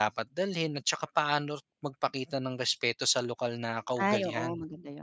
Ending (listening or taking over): taking over